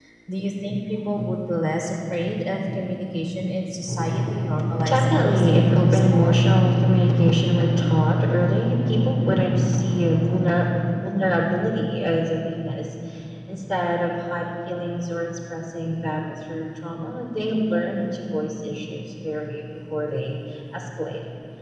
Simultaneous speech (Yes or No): Yes